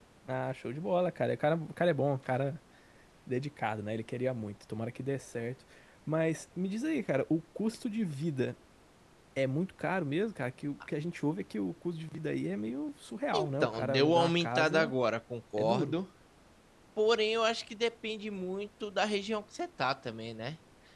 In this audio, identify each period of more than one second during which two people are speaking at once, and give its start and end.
13.3-14.9

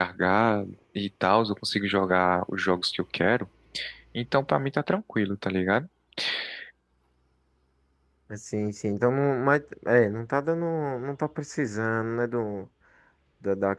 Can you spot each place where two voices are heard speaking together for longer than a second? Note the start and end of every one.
none

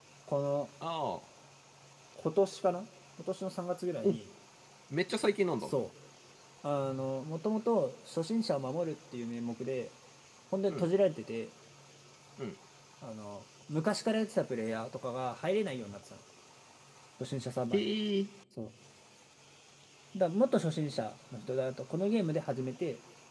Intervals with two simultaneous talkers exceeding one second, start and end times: none

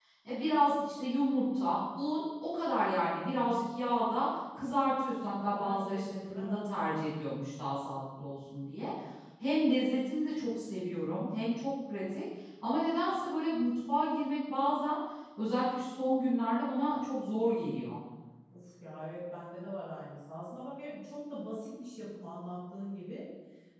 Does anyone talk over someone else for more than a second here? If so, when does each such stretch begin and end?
5.4-6.7

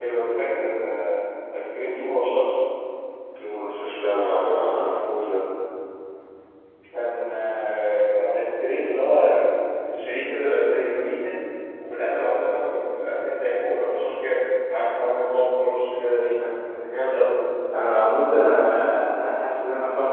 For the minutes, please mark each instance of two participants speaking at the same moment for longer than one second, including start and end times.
none

